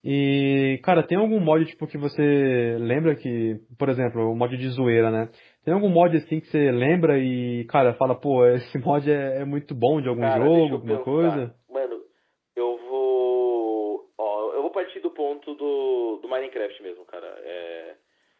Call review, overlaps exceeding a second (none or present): present